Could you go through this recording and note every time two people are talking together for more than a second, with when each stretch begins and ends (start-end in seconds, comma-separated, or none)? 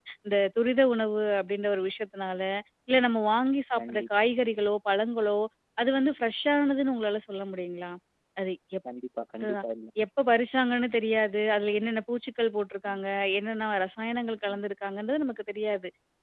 none